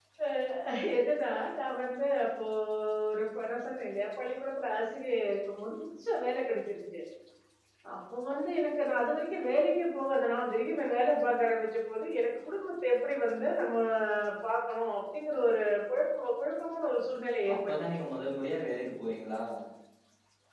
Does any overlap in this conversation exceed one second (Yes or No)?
No